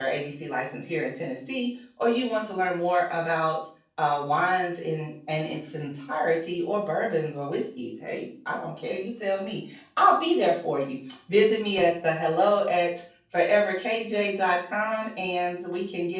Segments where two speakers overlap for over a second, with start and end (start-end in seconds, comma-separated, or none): none